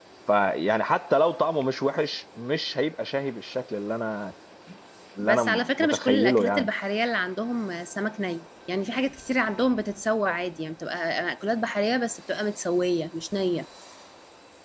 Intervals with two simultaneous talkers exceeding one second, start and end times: 5.2-6.7

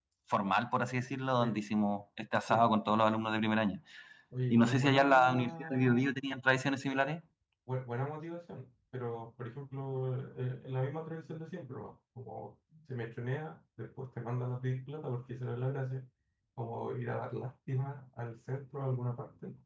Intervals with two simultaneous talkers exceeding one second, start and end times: 4.5-6.2

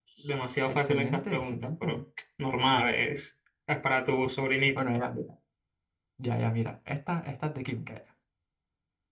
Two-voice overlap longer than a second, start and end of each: 0.7-1.9

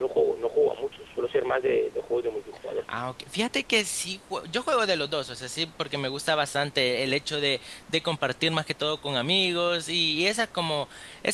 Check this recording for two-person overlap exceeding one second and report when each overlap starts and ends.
none

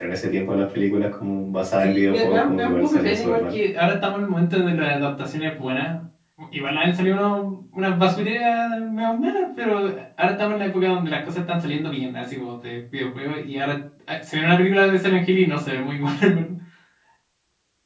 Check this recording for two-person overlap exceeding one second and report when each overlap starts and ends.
1.8-3.5

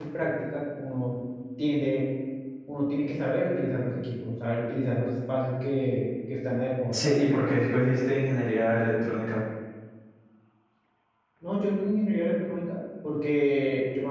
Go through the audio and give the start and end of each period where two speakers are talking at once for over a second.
none

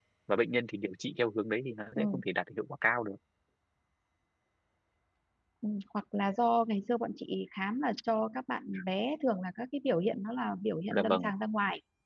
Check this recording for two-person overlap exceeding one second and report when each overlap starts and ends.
none

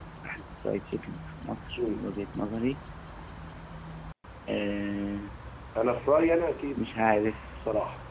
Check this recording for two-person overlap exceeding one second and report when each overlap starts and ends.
none

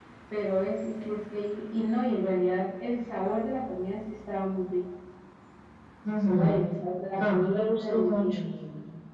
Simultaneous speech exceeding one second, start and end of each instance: 7.2-8.4

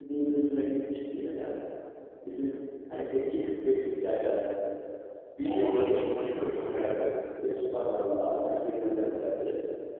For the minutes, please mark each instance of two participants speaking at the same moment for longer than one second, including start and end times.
5.4-7.0

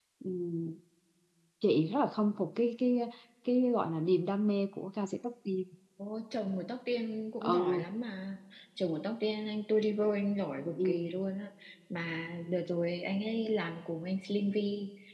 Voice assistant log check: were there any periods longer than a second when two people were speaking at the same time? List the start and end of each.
none

